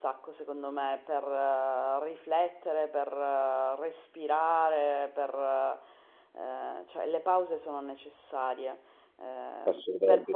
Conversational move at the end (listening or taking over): listening